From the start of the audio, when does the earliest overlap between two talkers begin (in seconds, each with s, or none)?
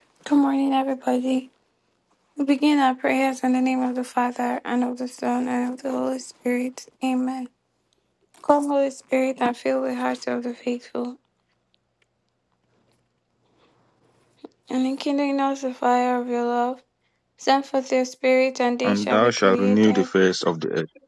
18.8 s